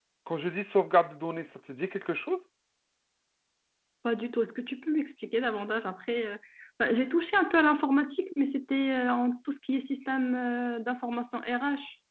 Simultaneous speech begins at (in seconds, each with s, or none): none